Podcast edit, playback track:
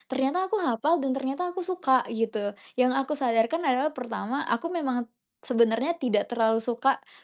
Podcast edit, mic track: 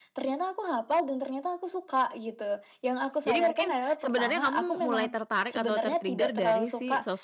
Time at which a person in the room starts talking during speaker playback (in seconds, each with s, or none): 3.3 s